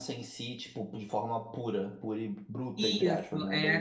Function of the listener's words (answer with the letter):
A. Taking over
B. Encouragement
A